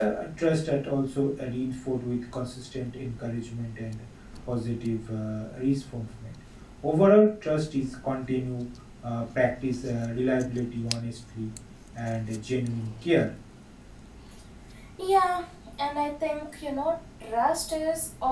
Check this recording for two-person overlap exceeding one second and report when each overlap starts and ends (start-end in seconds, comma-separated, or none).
none